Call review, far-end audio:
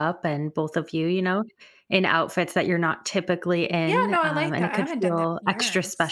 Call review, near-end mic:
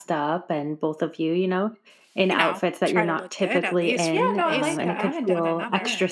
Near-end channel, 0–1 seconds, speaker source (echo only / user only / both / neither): echo only